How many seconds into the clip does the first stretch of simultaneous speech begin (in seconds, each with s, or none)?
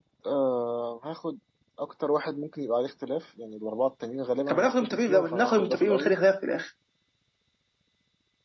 4.5 s